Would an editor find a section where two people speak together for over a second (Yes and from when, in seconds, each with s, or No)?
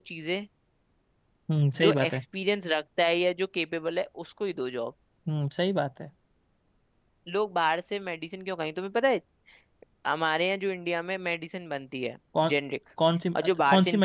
No